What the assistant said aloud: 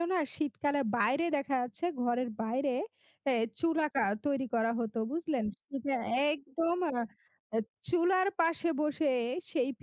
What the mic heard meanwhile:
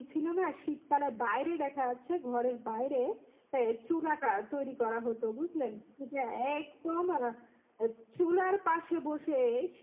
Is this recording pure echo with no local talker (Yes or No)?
Yes